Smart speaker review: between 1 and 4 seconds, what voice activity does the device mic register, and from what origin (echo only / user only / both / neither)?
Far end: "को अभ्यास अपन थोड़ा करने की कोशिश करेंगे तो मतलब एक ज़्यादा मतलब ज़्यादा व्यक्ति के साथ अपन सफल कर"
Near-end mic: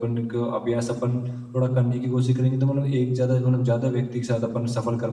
echo only